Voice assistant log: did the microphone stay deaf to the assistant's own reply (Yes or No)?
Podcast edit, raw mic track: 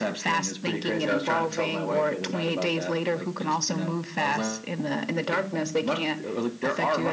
No